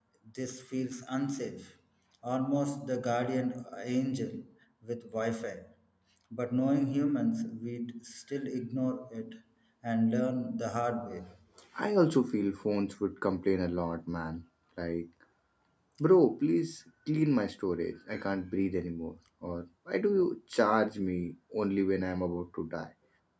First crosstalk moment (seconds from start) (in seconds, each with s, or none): none